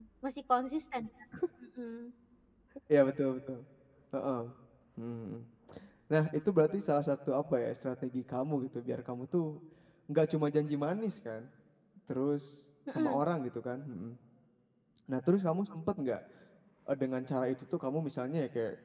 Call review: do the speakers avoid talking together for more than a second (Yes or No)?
Yes